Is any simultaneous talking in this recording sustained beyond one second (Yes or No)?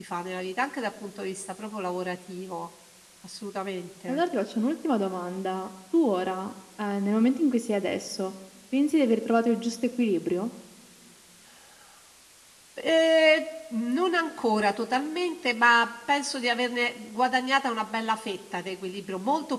No